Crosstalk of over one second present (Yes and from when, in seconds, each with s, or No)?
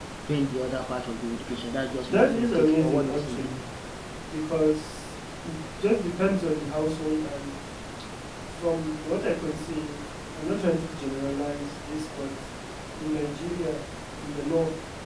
Yes, from 2.0 s